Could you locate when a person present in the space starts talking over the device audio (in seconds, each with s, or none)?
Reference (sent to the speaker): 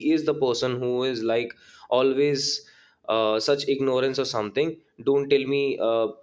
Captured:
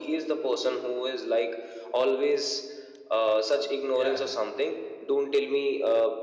3.9 s